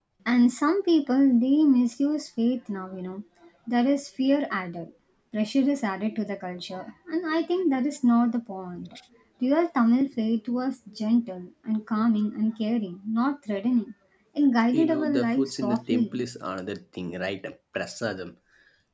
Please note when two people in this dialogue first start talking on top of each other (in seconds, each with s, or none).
14.7 s